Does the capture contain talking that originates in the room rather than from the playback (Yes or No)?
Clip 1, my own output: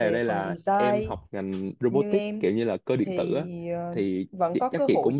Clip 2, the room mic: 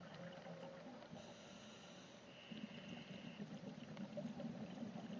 No